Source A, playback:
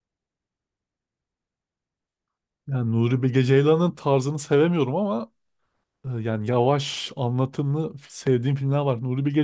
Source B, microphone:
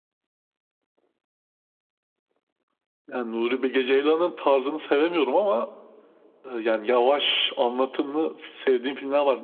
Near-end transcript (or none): none